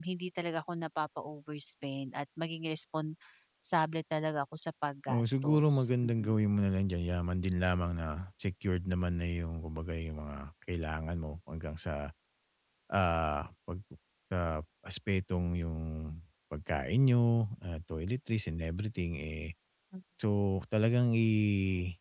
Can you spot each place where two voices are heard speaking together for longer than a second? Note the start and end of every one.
5.1-6.3

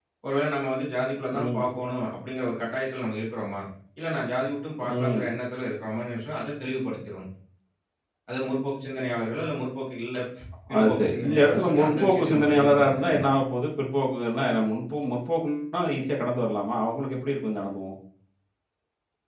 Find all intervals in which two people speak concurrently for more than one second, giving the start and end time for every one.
10.8-13.2

